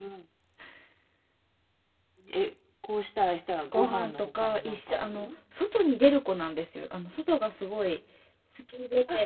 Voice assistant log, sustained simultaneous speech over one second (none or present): present